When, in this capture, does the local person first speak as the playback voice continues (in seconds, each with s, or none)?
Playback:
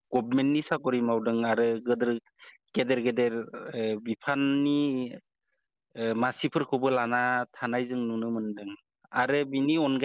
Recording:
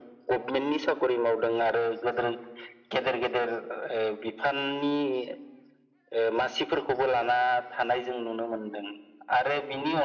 none